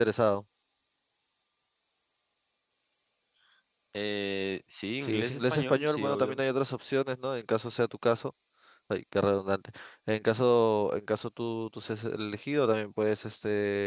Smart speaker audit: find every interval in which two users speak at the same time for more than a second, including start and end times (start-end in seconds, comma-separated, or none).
5.0-6.4